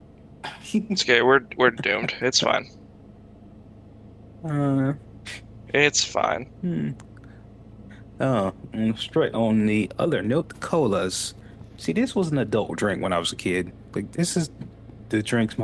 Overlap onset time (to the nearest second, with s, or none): none